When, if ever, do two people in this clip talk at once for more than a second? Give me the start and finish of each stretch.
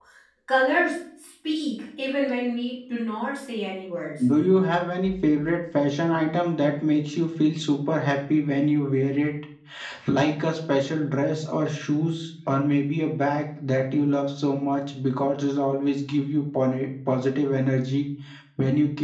none

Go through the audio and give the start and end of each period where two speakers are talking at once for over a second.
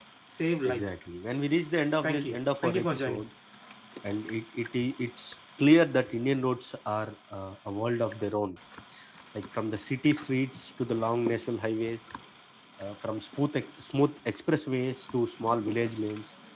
2.0-3.3

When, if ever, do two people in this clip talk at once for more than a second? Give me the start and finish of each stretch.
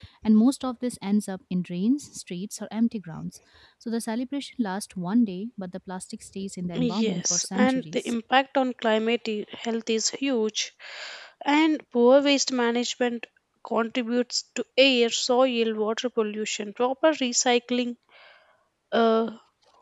6.8-8.1

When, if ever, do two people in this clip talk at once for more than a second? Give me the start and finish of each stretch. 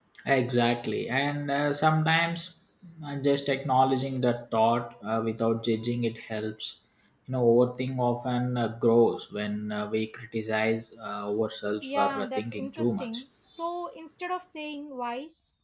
11.8-13.1

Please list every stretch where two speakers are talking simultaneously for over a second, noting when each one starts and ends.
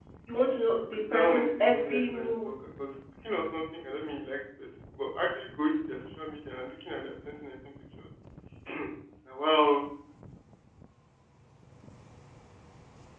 1.1-2.5

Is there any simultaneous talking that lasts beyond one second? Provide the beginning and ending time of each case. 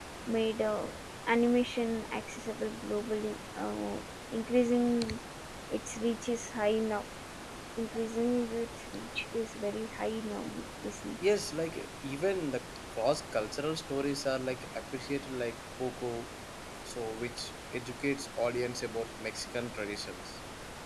none

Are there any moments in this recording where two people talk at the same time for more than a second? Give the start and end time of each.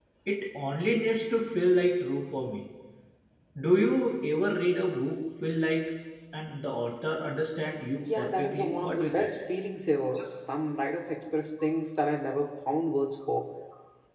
8.0-9.3

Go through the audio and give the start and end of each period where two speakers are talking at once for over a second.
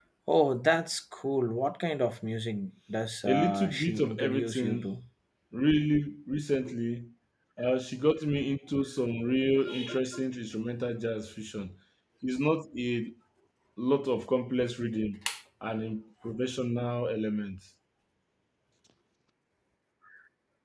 3.2-4.9

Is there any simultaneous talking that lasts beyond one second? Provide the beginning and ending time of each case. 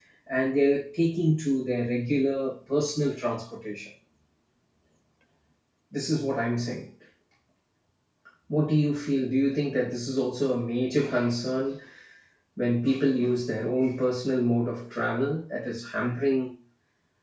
none

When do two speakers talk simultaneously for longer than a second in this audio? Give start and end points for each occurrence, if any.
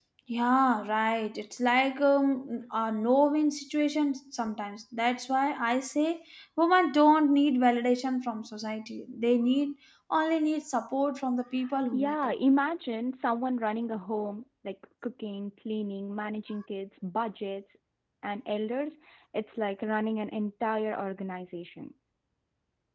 none

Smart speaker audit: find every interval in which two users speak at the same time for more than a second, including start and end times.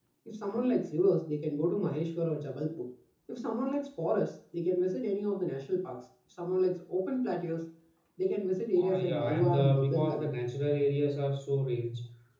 8.8-10.3

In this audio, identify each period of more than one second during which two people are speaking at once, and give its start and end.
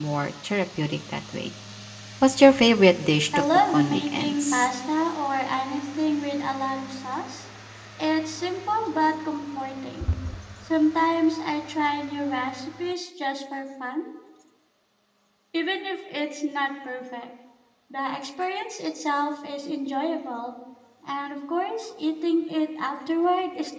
3.4-4.7

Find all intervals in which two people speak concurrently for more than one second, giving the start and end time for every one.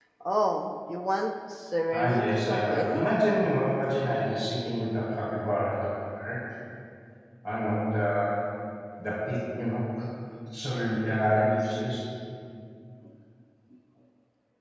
1.9-3.1

